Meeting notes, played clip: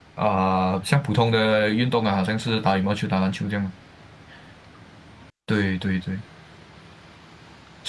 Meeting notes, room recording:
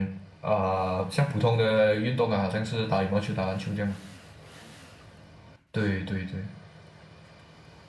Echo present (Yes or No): Yes